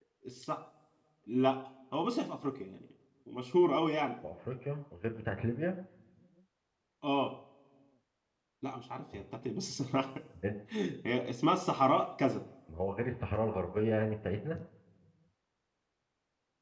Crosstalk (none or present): none